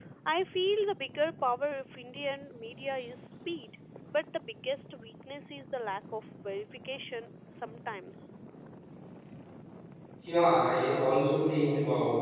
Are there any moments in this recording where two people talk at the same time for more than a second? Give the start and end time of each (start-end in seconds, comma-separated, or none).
none